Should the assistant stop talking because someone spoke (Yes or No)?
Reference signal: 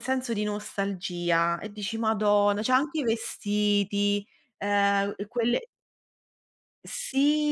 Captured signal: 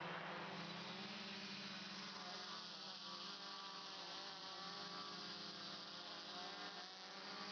No